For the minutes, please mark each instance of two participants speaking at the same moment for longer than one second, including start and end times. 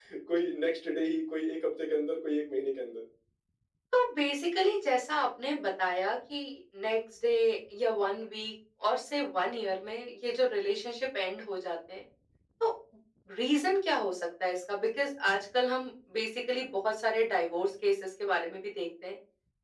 none

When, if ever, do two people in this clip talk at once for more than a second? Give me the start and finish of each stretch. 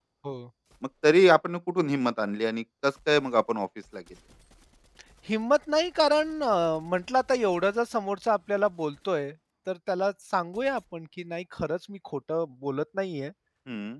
none

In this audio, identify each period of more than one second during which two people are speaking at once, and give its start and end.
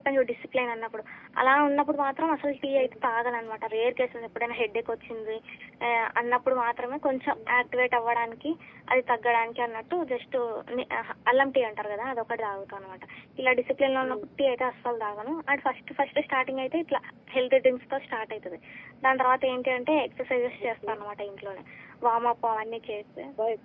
none

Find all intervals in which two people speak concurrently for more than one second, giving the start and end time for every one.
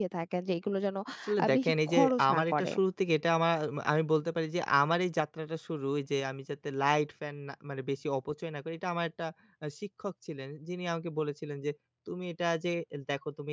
1.4-2.7

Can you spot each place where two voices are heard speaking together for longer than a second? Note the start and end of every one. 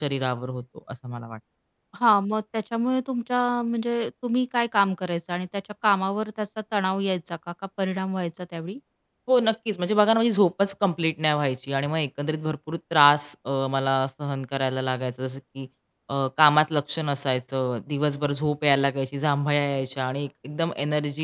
none

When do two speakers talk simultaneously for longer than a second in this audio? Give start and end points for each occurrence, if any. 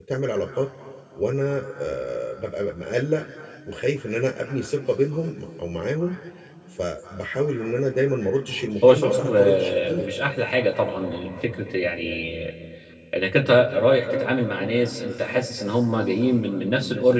8.8-10.1

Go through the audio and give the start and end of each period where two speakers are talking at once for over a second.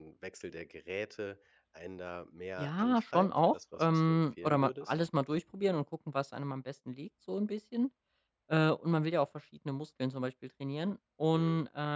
2.6-4.9

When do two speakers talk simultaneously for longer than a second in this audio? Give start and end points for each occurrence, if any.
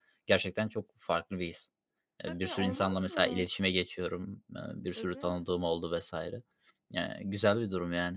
2.3-3.5

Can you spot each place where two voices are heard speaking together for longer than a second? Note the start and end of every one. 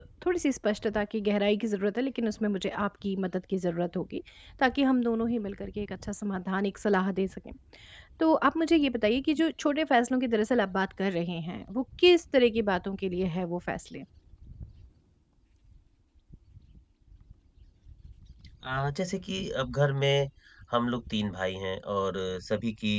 none

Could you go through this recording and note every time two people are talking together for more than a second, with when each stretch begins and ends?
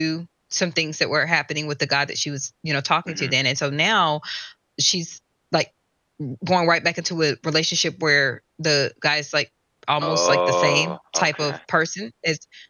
10.0-11.6

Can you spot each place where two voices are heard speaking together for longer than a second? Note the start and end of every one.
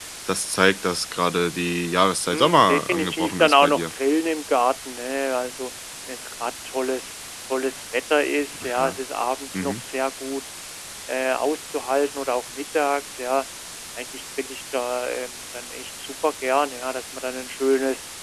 2.3-3.8

